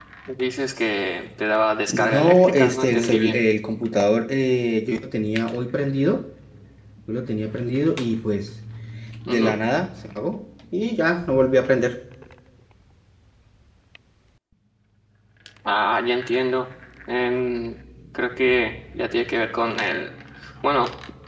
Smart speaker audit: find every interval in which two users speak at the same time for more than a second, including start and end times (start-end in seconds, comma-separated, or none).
1.9-3.4